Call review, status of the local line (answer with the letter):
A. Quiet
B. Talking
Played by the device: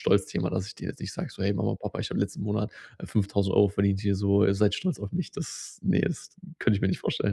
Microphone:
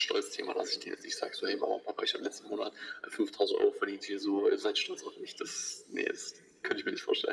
A